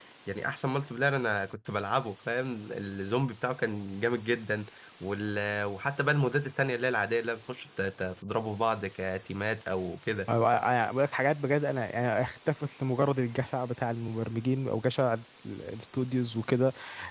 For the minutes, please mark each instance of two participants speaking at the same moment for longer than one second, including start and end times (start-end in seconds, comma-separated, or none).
none